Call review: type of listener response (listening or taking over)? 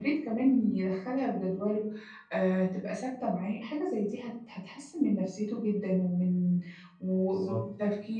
listening